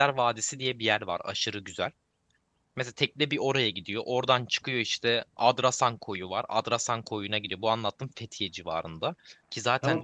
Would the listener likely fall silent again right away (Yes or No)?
No